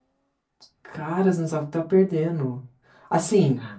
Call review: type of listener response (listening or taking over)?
listening